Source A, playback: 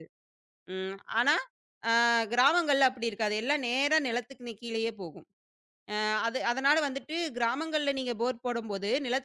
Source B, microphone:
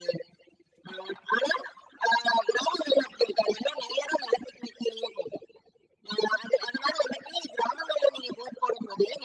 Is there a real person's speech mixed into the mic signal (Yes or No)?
No